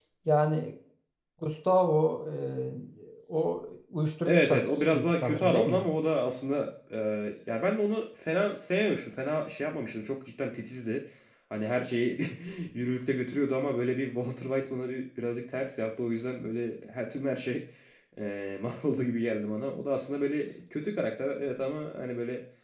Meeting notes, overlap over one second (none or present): present